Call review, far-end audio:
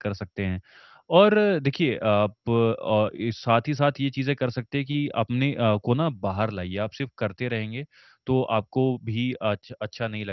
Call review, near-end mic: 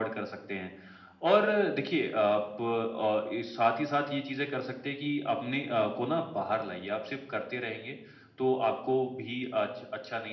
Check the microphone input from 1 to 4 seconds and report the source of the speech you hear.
echo only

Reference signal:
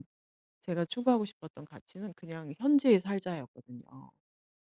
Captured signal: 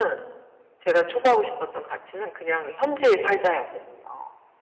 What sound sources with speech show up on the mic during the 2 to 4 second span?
echo only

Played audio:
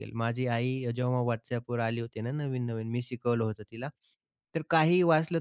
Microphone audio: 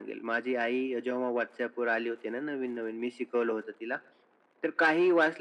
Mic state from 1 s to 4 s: echo only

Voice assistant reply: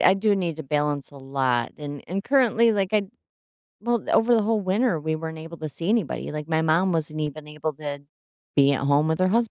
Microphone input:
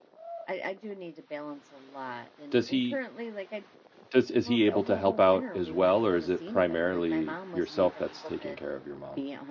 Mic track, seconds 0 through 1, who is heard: echo only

